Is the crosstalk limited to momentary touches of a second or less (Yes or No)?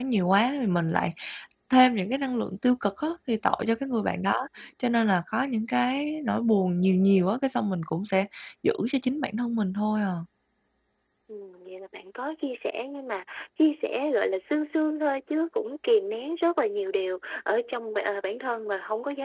Yes